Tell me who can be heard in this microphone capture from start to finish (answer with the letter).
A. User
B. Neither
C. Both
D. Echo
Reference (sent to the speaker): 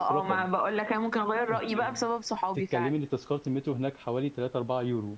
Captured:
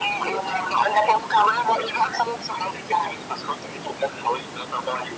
D